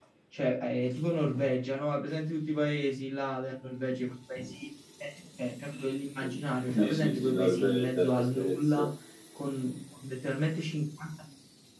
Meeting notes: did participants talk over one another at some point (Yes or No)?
Yes